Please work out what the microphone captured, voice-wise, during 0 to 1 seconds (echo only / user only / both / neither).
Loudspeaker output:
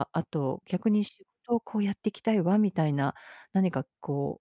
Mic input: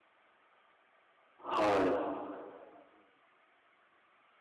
neither